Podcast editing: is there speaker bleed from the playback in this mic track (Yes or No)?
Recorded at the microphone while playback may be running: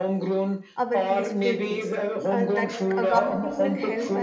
Yes